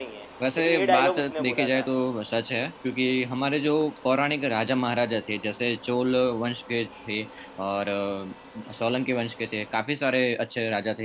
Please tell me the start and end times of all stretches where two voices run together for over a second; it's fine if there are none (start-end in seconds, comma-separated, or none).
0.6-1.8